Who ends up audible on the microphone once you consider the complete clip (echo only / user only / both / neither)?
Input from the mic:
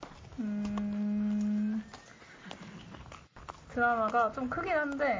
echo only